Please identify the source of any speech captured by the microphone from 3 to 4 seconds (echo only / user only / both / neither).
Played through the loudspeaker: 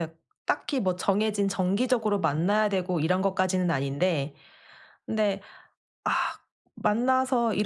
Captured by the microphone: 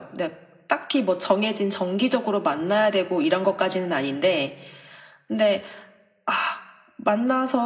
echo only